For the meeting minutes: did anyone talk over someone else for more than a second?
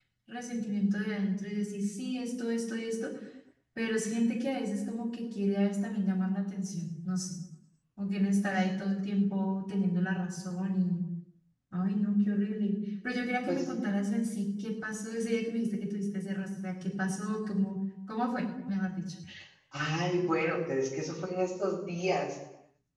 No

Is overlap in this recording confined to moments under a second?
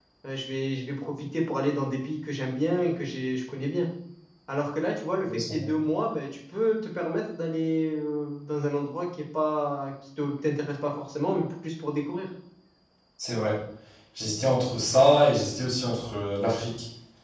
Yes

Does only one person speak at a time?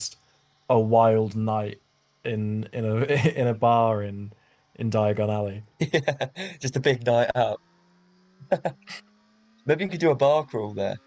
Yes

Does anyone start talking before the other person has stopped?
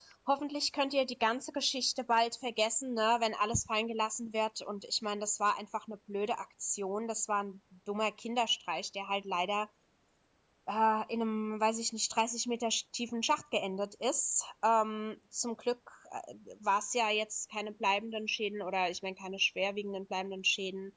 No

